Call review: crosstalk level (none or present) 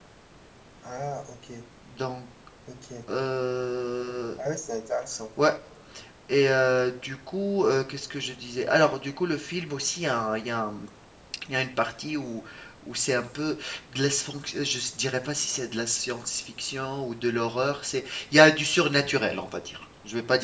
none